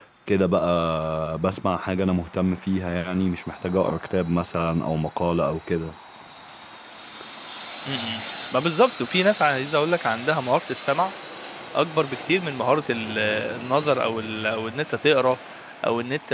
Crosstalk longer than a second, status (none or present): none